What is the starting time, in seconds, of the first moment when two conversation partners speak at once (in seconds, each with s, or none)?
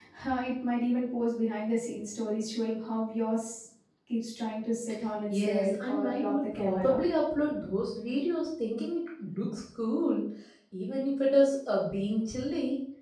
5.3 s